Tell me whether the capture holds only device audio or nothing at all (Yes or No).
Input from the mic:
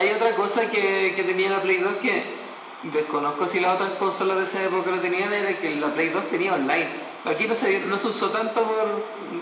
Yes